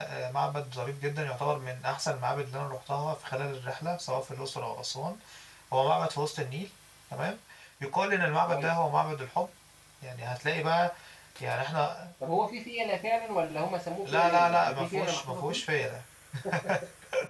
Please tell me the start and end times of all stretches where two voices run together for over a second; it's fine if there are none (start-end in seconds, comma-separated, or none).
14.1-15.6